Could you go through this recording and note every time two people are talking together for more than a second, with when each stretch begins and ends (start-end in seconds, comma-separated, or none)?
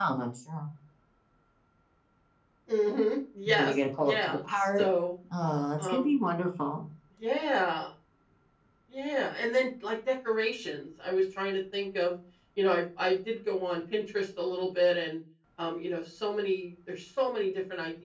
3.5-4.8